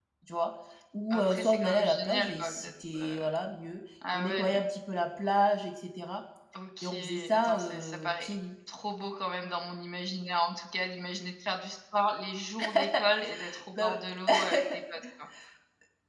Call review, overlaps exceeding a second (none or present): present